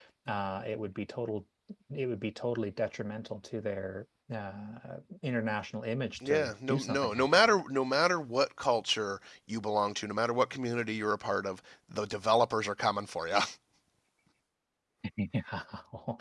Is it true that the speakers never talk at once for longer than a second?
No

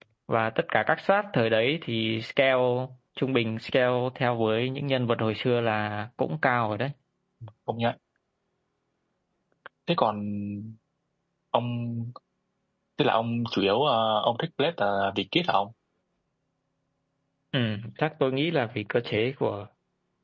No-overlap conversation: Yes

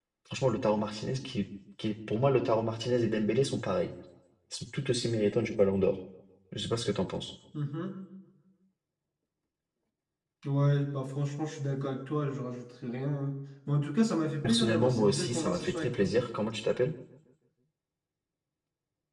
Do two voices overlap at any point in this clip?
Yes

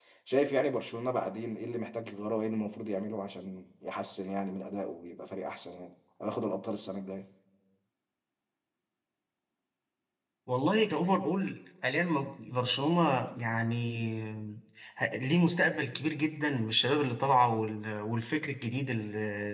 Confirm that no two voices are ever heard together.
Yes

